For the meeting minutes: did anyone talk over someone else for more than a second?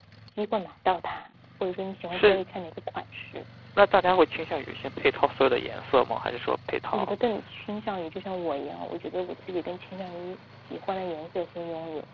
No

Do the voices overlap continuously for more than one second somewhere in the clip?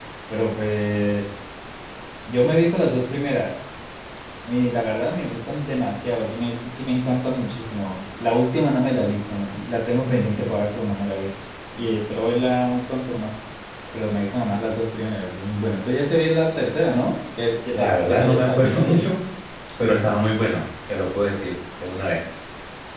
Yes, from 17.8 s

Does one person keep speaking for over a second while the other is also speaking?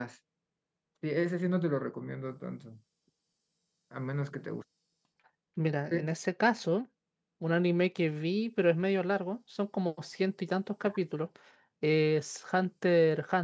No

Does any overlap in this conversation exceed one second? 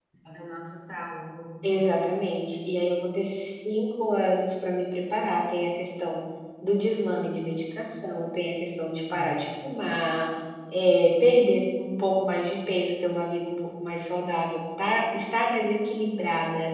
No

